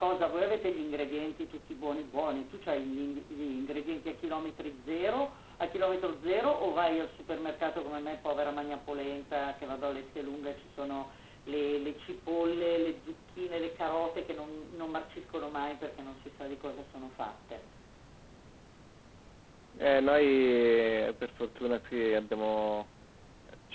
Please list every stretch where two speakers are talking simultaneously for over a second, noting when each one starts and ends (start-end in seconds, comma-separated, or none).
none